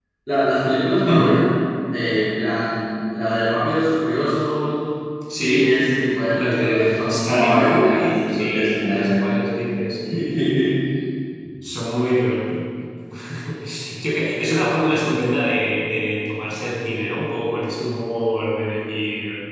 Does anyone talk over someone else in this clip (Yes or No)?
Yes